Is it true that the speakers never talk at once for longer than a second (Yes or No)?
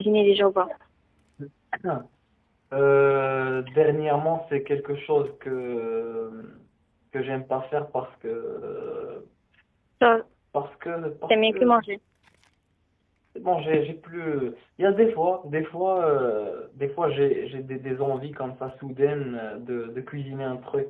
Yes